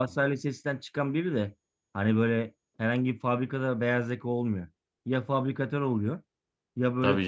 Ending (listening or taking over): listening